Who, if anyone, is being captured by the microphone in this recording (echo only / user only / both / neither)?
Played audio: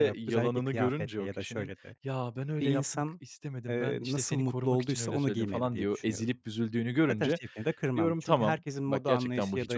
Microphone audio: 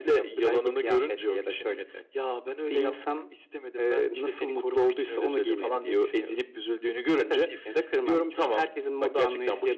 echo only